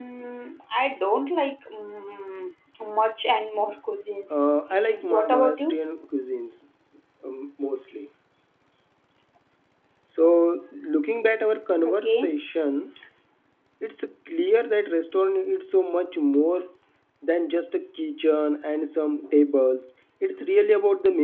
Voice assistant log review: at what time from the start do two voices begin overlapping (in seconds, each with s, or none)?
4.3 s